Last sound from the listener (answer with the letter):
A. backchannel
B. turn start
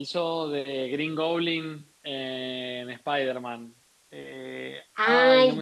B